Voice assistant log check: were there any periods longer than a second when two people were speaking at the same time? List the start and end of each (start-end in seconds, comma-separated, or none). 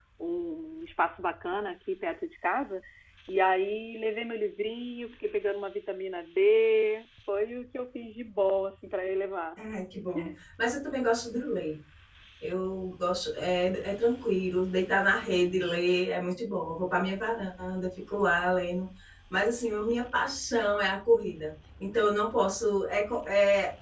none